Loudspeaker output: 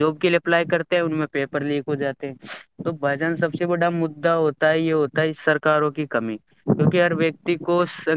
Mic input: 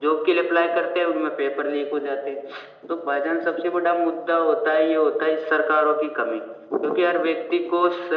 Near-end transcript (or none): none